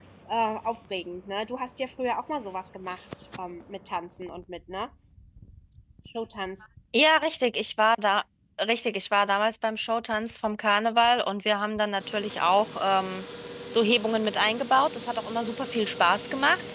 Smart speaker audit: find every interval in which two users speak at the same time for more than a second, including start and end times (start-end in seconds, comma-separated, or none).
none